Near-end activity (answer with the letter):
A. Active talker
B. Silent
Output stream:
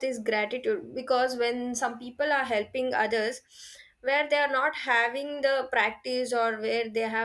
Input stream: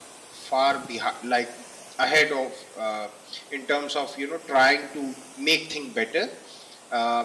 A